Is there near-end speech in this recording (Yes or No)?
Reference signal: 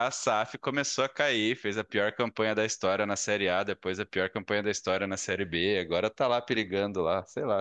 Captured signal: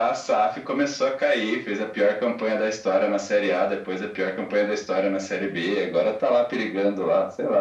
No